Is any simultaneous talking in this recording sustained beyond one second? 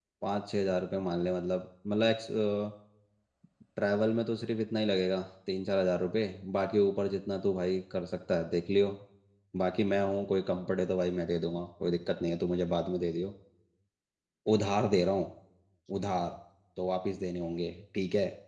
No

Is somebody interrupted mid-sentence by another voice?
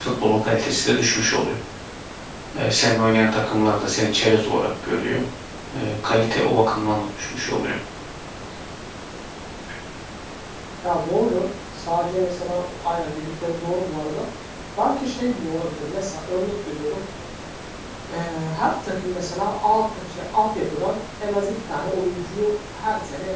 No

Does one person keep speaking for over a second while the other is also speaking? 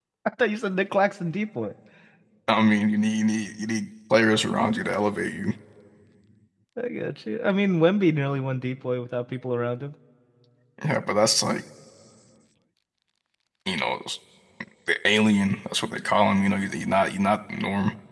No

